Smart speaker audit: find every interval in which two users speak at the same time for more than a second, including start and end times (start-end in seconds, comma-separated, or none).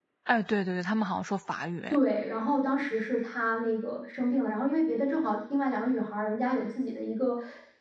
none